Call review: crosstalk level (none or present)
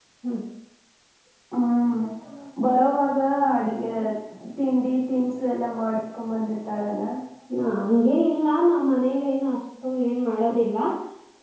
none